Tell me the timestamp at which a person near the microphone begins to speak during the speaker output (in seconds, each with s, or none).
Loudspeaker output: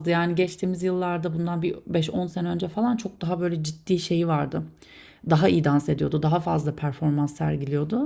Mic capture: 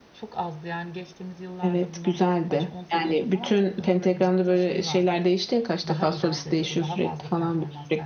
1.6 s